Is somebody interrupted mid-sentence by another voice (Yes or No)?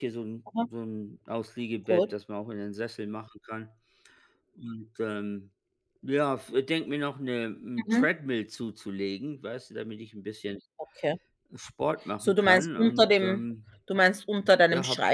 Yes